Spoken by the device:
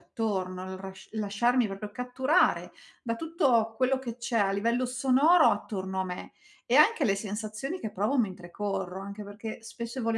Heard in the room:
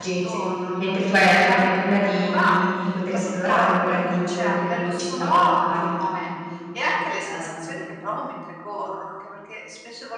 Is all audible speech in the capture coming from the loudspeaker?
No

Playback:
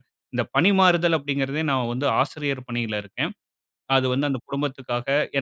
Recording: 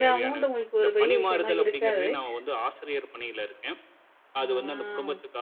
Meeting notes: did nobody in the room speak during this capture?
No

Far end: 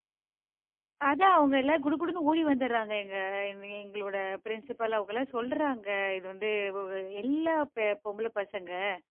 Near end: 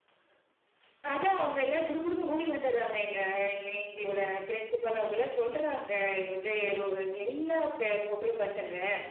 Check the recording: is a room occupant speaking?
No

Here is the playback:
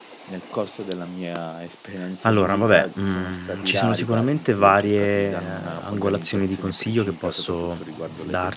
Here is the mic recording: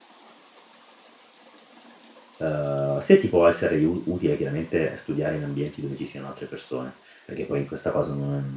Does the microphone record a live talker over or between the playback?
Yes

